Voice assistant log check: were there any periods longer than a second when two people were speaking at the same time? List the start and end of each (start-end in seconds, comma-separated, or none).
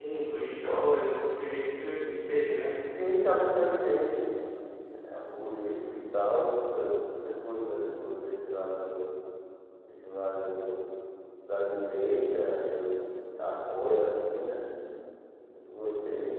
none